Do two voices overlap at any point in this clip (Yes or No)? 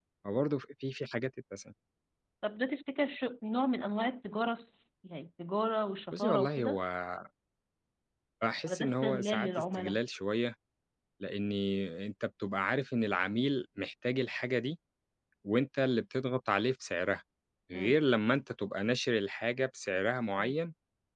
Yes